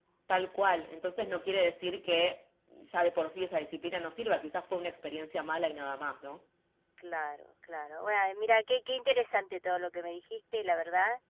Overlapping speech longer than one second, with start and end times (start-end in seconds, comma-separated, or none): none